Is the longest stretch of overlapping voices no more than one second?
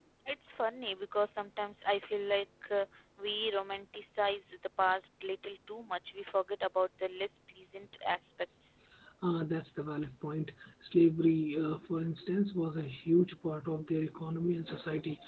Yes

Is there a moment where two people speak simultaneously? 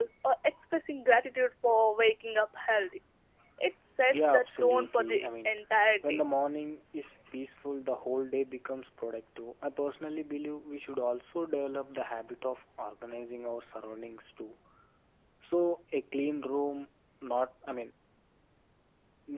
Yes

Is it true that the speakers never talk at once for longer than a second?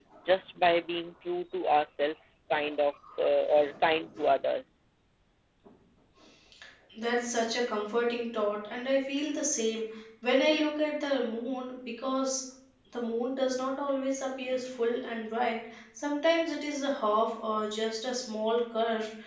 Yes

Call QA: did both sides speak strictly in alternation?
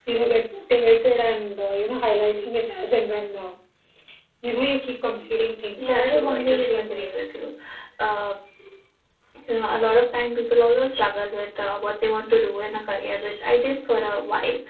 No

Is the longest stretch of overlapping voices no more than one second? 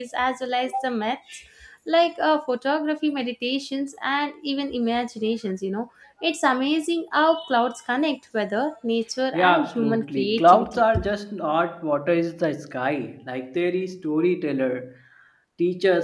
No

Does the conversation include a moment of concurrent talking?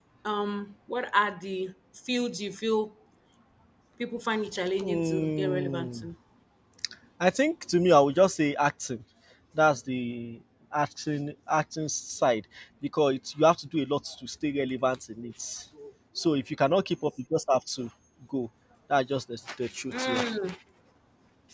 Yes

